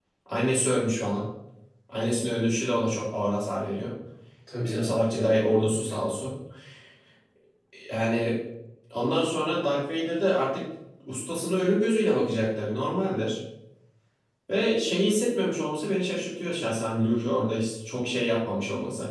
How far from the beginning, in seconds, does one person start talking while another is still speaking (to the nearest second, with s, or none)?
5 s